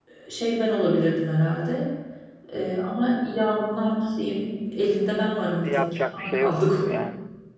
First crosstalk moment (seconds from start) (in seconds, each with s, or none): 5.6 s